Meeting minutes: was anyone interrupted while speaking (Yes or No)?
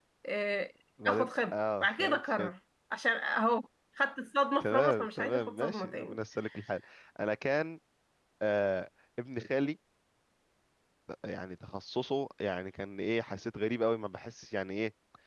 Yes